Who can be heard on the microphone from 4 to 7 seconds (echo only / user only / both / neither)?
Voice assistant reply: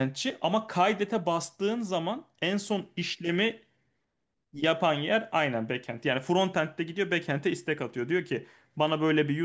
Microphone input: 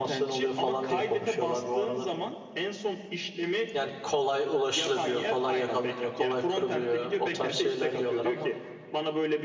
both